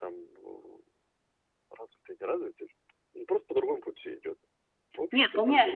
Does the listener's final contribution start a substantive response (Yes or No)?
Yes